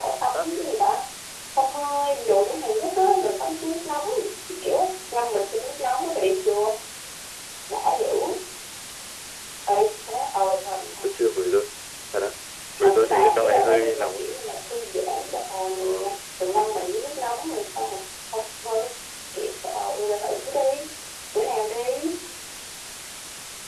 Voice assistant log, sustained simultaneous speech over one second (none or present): present